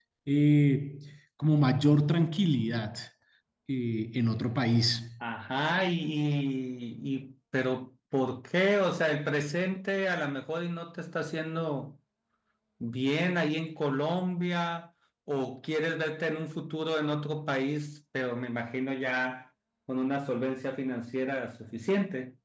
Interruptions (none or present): none